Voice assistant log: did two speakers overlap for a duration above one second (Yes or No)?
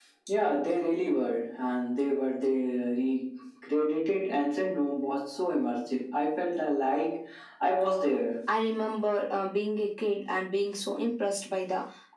No